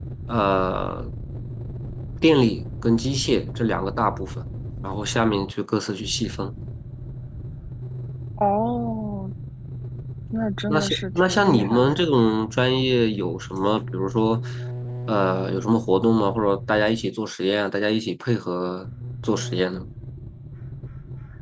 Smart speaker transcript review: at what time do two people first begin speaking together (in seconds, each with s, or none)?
10.7 s